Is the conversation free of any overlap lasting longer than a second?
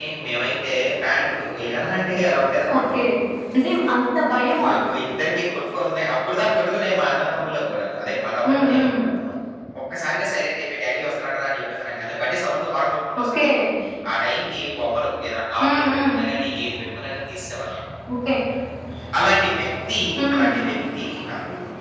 Yes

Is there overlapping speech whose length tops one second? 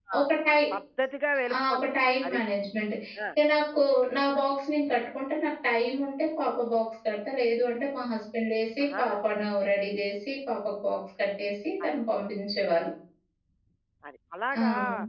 No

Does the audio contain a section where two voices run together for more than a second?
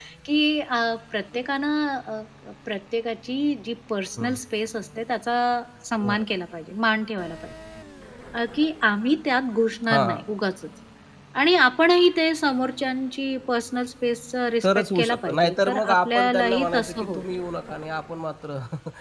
Yes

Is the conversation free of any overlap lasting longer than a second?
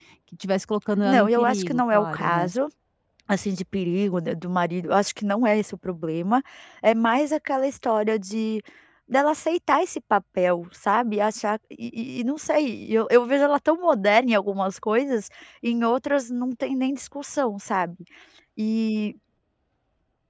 No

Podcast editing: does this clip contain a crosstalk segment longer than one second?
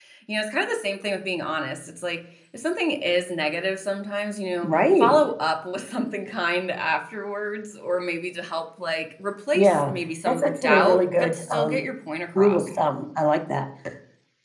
Yes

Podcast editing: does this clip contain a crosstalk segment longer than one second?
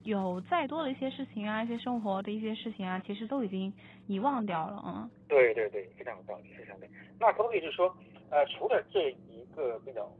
No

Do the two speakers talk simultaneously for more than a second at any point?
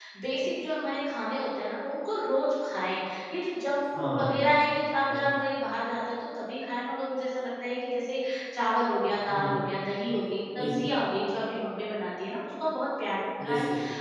No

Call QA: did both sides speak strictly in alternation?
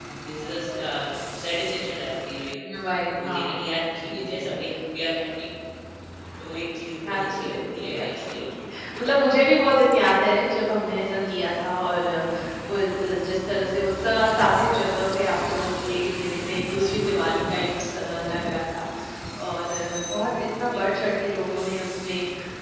No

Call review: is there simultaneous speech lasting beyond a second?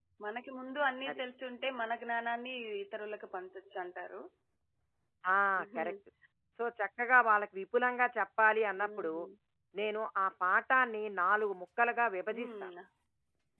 No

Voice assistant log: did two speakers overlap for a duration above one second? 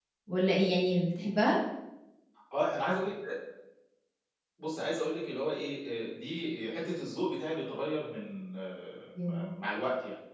No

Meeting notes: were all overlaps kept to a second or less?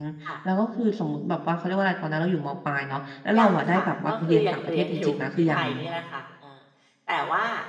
No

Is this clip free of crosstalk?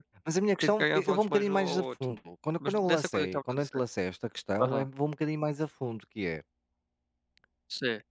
No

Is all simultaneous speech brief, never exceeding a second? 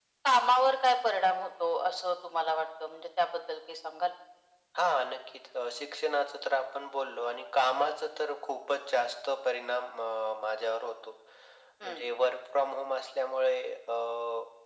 Yes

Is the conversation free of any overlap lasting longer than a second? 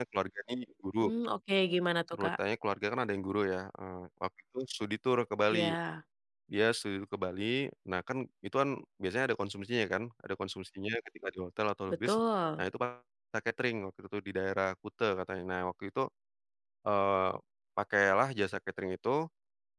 Yes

